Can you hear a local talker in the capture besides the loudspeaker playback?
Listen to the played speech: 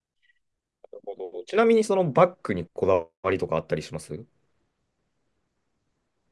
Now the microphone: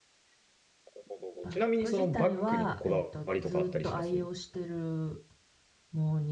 Yes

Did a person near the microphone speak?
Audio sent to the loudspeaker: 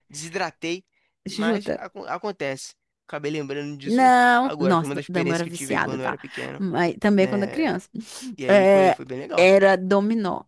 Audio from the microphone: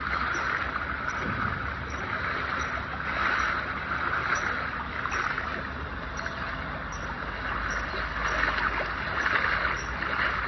No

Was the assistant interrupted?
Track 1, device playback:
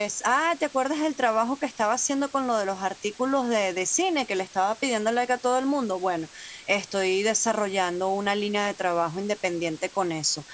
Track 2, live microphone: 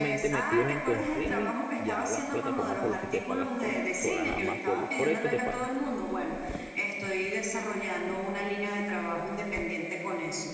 Yes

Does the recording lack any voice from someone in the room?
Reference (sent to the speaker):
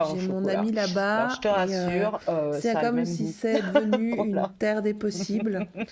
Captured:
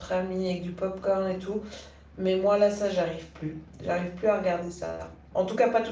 No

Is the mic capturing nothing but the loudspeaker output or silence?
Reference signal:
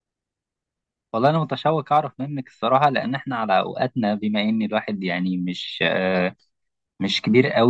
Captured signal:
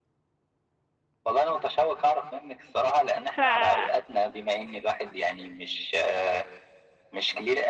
No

